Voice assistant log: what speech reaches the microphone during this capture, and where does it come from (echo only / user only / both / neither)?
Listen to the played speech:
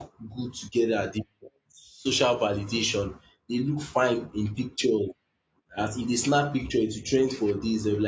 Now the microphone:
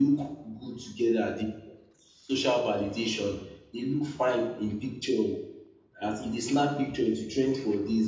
echo only